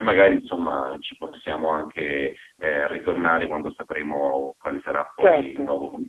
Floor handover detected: Yes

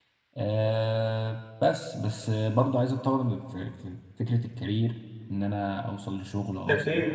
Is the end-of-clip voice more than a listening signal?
No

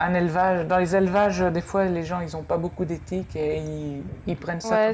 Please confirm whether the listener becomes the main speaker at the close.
Yes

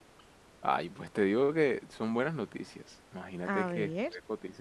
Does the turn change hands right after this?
No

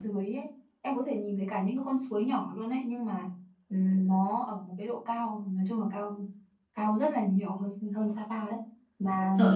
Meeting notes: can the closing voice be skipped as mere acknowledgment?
No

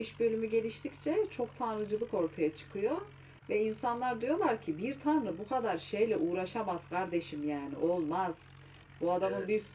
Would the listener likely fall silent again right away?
Yes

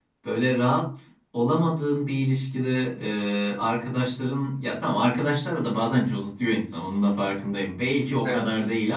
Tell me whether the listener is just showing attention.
Yes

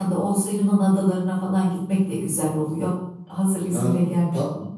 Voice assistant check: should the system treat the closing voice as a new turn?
Yes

